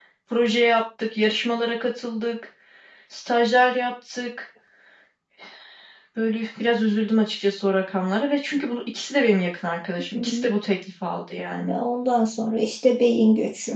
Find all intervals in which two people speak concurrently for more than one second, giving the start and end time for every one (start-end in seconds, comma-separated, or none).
none